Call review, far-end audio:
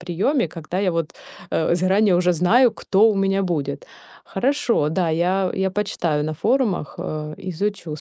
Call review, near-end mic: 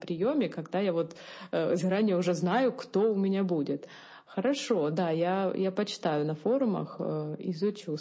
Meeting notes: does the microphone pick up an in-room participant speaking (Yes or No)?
No